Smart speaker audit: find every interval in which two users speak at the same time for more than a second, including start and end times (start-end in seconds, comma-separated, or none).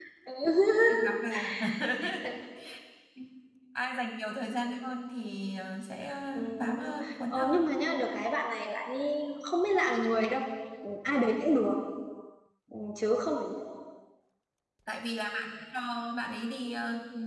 6.3-7.7